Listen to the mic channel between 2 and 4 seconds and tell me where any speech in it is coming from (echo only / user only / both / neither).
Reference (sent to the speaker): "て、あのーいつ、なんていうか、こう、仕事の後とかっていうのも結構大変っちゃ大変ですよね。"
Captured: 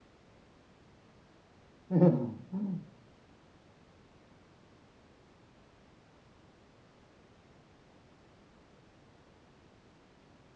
user only